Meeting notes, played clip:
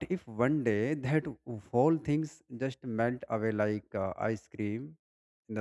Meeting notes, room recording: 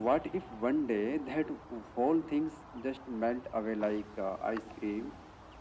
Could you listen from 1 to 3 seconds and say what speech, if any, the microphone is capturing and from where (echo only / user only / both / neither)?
echo only